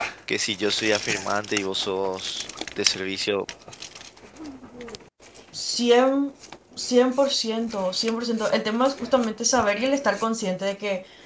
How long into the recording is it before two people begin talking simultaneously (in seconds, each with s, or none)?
none